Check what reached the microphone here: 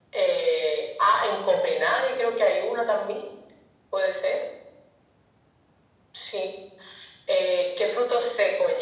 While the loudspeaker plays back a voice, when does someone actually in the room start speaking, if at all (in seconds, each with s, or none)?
none